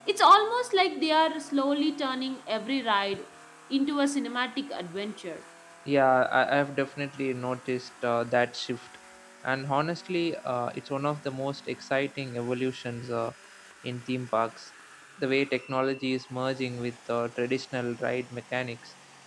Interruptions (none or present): none